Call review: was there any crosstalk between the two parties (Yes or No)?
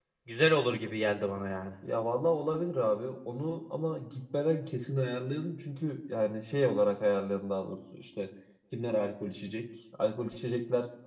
No